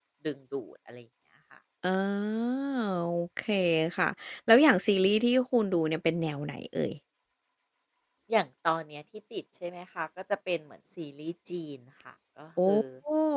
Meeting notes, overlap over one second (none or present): none